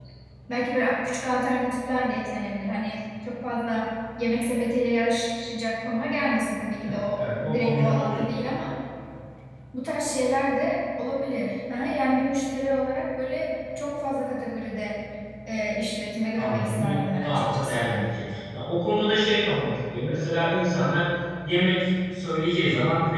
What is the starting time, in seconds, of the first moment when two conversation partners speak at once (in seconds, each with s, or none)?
6.9 s